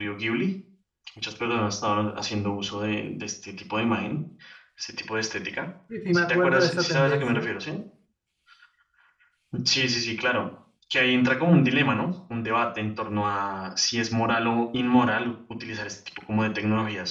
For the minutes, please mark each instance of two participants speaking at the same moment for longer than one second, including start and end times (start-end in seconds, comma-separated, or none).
6.1-7.5